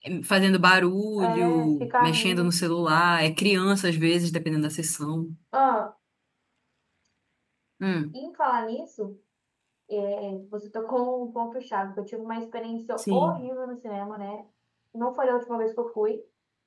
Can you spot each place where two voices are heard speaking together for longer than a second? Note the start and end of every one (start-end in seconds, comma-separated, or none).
1.2-2.5